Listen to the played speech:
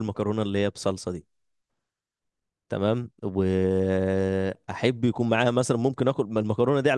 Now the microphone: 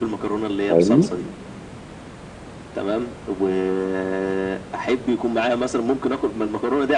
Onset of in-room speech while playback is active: 0.7 s

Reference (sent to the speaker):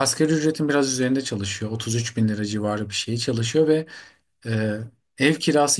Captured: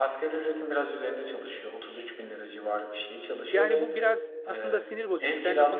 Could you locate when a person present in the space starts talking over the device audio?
3.5 s

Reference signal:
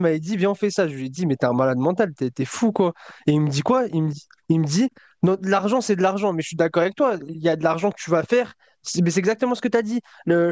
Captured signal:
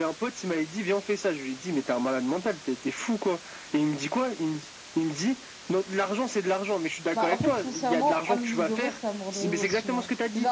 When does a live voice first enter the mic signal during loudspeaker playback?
7.1 s

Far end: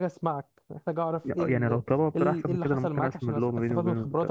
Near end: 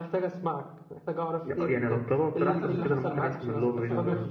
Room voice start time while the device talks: 2.5 s

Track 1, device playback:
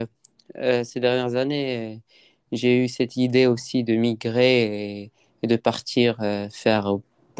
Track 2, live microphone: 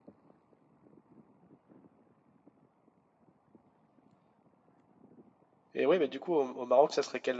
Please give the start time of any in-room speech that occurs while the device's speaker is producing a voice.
5.7 s

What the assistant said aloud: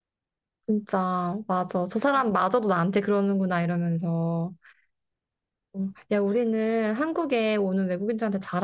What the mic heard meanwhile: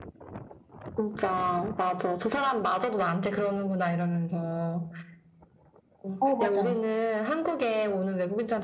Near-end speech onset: 6.2 s

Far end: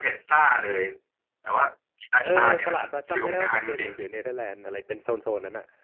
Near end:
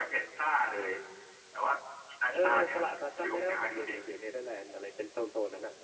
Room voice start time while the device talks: none

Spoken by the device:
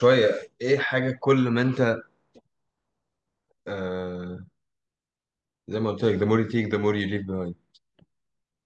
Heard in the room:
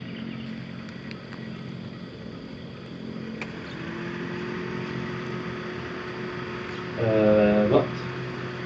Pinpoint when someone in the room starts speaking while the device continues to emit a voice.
7.0 s

